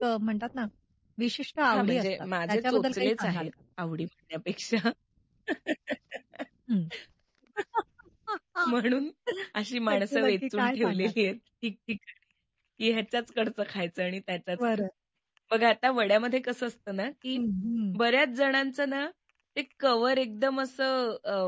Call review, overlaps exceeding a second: present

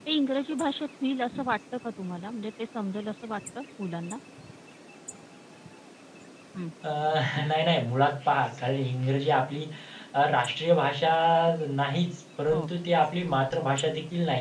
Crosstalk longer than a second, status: none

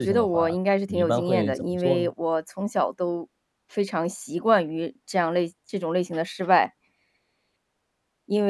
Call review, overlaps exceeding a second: present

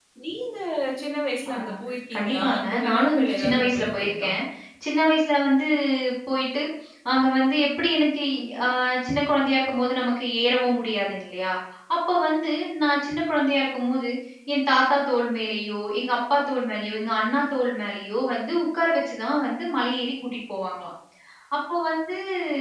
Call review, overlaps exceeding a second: present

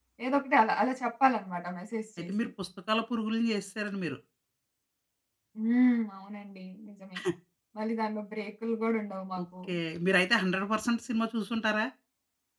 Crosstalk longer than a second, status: none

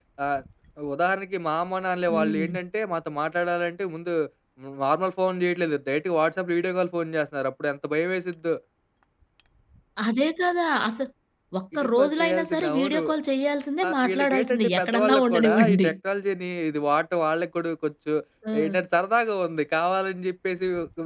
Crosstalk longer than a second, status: present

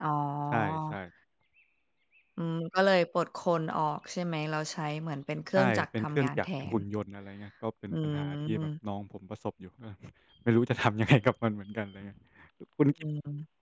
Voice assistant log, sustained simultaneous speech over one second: present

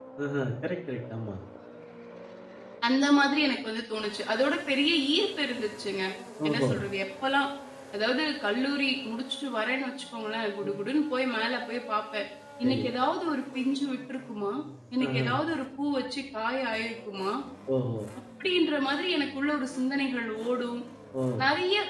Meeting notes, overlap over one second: none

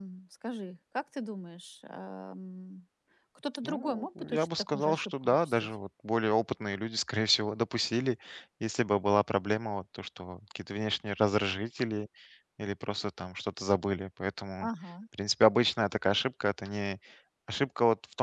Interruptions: present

